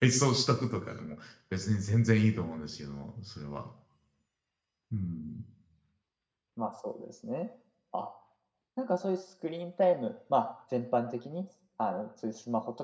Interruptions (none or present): none